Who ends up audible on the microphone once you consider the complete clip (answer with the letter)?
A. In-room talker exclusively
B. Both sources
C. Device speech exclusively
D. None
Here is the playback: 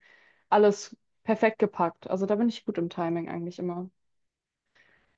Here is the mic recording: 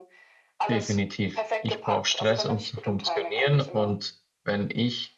B